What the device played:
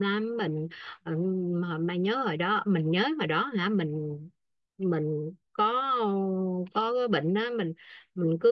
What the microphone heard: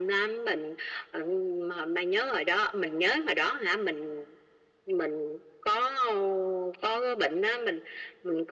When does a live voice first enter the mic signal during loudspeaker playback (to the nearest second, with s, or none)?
none